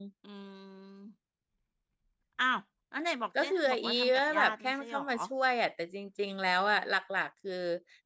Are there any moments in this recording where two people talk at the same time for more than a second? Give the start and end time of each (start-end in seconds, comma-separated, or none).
3.4-5.0